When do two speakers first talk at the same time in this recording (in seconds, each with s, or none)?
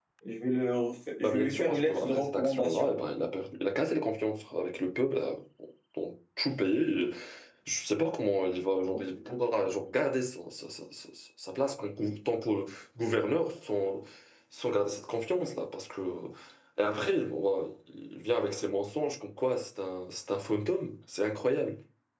1.2 s